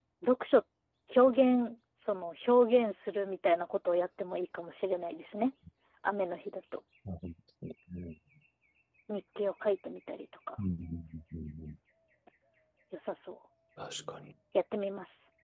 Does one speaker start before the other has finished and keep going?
No

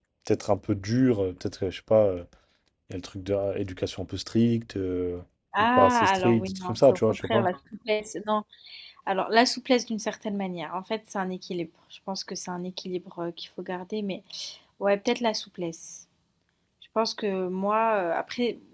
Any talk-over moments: Yes, from 5.6 s

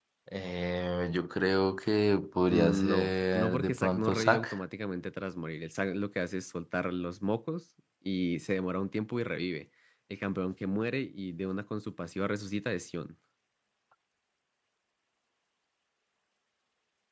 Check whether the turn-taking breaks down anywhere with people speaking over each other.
Yes, from 2.5 s

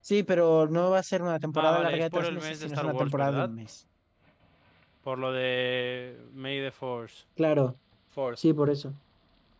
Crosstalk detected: Yes, from 1.6 s

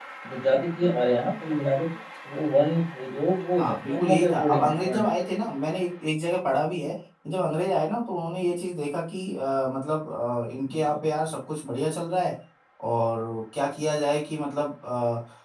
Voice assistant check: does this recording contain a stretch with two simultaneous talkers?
Yes, from 3.6 s

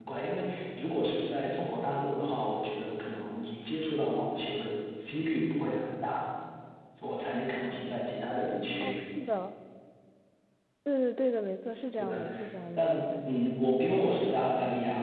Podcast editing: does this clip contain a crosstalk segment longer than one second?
No

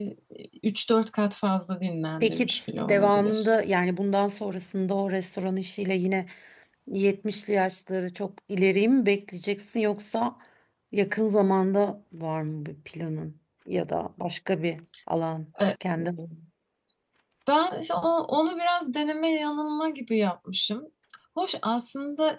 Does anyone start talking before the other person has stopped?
Yes, from 2.2 s

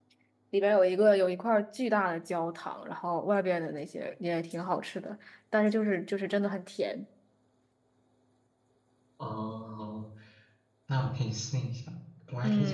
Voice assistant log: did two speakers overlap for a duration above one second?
No

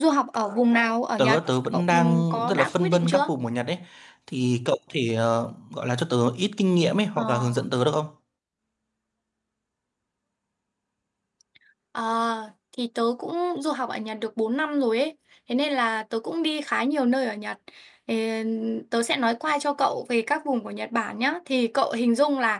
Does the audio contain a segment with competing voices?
Yes, from 1.2 s

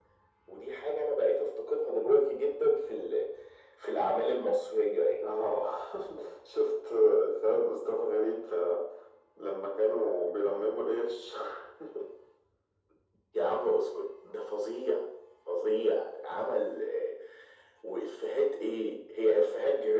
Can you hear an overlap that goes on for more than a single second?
No

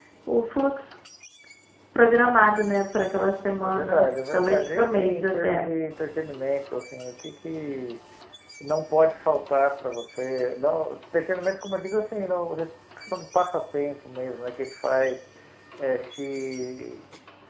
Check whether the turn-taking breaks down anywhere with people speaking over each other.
Yes, from 3.6 s

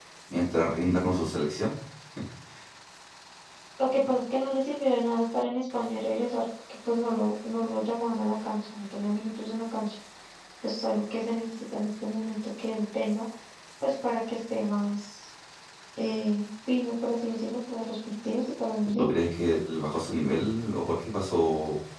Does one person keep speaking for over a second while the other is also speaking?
No

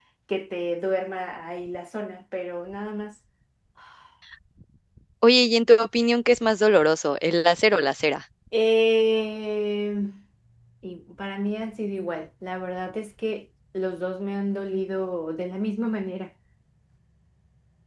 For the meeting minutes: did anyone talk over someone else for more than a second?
No

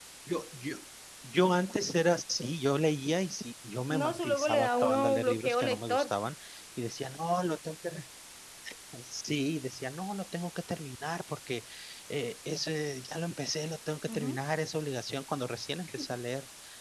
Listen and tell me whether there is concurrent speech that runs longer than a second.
Yes, from 3.9 s

